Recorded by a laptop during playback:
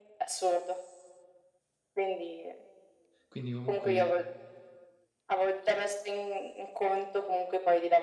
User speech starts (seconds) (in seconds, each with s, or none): 3.3 s